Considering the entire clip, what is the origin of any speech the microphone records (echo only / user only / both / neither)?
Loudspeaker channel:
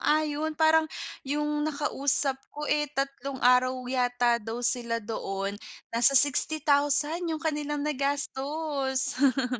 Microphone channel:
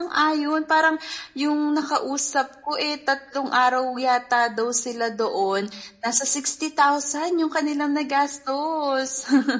echo only